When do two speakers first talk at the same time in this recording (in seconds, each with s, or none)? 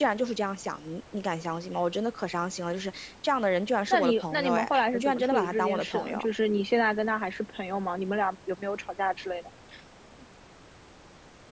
3.9 s